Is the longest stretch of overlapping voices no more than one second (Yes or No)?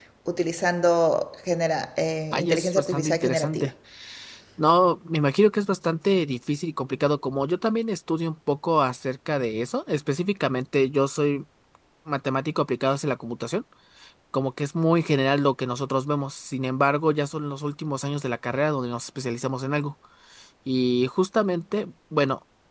No